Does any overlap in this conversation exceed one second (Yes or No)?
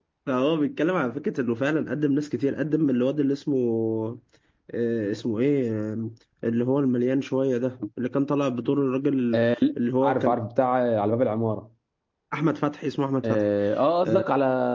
No